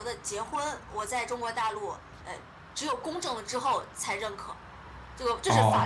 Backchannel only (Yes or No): No